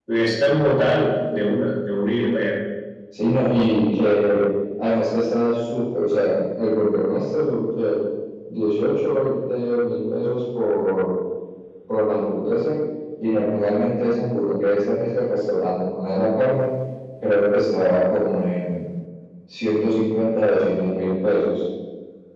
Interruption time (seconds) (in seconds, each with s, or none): none